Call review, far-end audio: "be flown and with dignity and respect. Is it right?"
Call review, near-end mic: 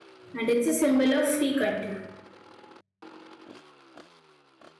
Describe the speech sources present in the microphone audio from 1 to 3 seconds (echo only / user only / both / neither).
user only